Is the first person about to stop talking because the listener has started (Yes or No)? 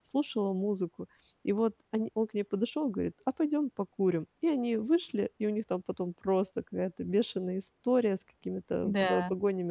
No